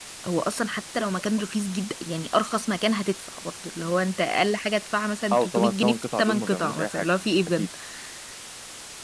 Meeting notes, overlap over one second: present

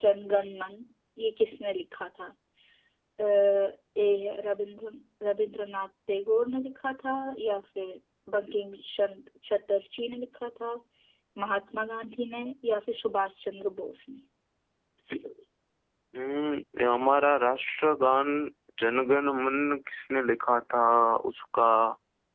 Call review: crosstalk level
none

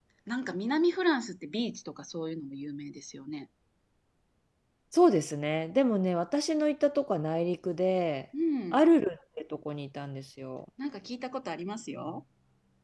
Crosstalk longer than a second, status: none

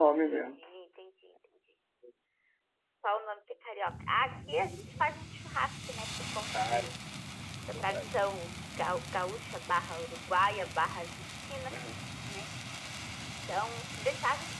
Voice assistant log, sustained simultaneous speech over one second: none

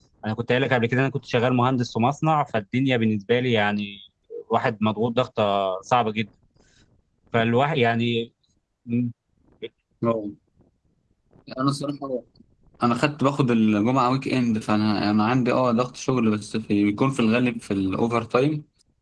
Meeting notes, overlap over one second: none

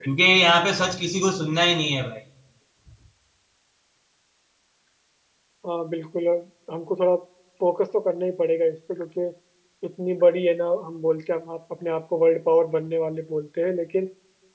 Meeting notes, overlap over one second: none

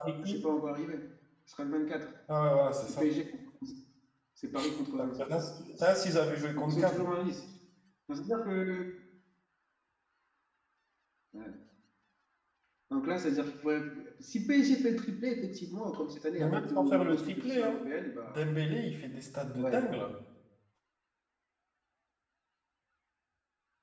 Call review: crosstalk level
present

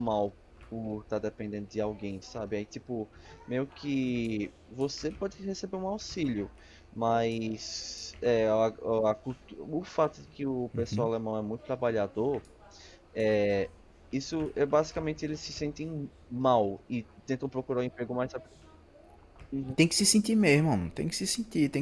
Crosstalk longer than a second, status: none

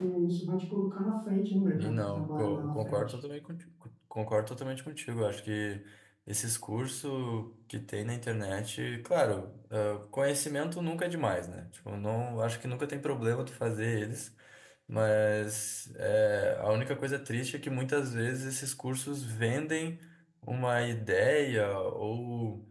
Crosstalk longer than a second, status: present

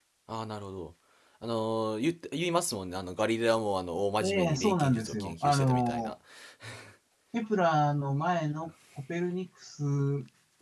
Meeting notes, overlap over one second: present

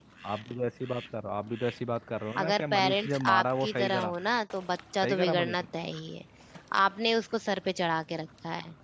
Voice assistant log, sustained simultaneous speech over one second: present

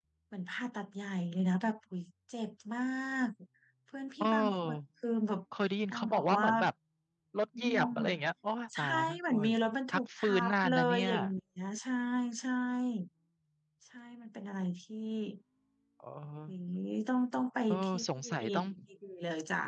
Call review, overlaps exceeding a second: present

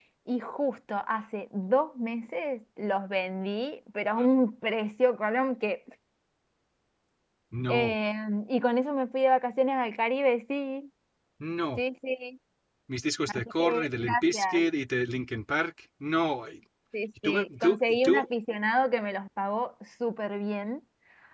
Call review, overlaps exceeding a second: present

